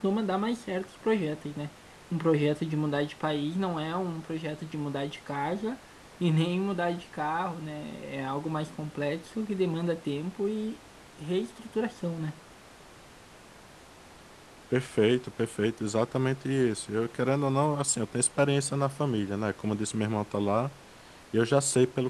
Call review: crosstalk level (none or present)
none